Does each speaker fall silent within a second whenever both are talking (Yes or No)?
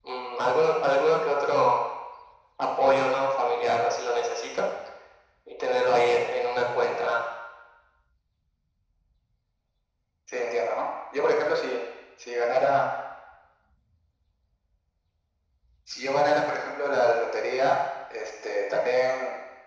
Yes